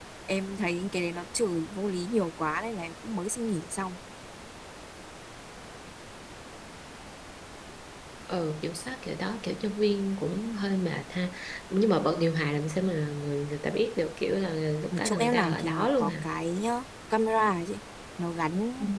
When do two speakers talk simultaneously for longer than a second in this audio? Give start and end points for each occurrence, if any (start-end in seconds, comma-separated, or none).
14.9-16.3